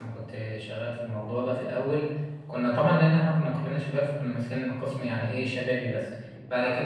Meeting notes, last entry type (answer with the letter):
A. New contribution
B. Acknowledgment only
B